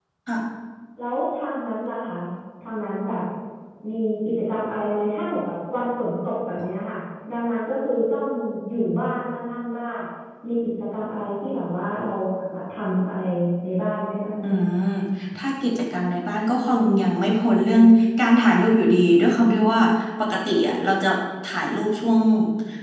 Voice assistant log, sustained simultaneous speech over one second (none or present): none